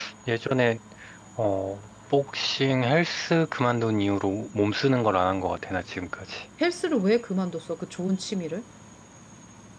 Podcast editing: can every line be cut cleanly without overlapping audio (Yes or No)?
Yes